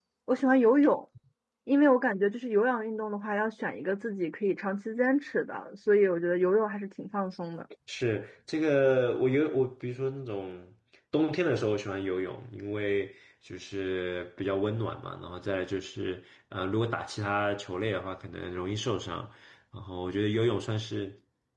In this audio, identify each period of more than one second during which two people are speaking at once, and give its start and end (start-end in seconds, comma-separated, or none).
none